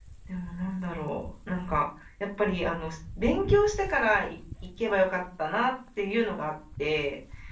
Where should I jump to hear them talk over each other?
none

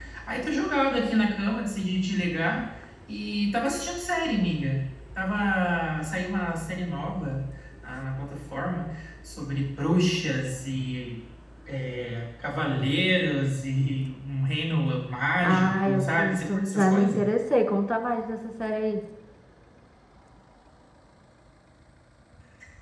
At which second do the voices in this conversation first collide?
15 s

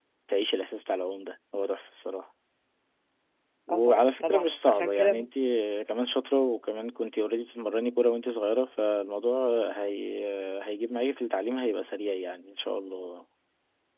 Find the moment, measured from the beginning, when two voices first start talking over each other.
4 s

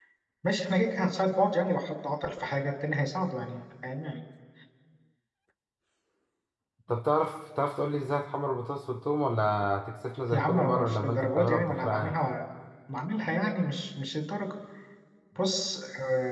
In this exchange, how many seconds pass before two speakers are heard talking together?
10 s

